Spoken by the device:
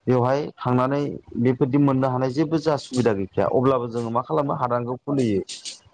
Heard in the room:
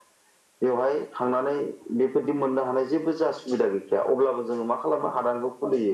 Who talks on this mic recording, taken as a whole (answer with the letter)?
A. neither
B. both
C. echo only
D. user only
C